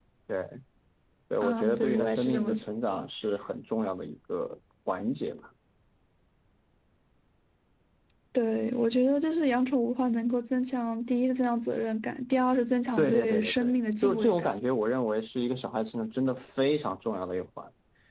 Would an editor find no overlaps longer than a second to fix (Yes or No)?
No